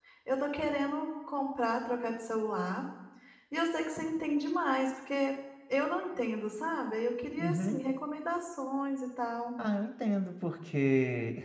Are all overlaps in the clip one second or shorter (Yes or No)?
Yes